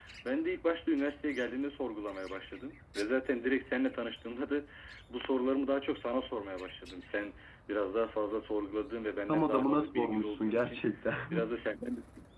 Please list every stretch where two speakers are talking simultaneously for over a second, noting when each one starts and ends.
9.3-10.8

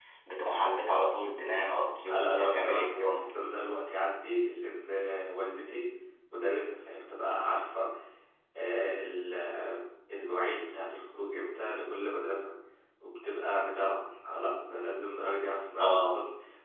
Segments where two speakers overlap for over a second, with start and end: 2.0-3.3

